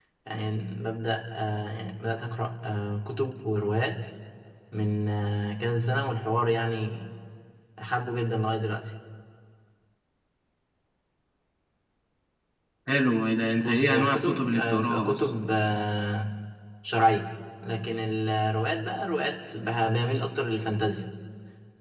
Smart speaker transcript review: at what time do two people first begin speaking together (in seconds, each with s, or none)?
13.6 s